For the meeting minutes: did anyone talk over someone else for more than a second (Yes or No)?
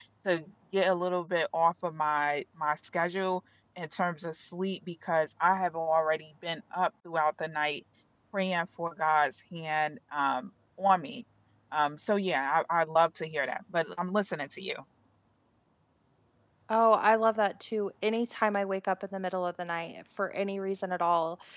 No